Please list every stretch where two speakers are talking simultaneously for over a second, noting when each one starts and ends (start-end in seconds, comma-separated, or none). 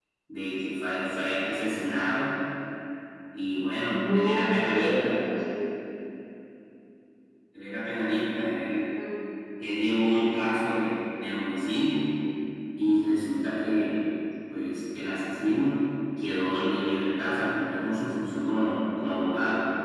3.8-5.2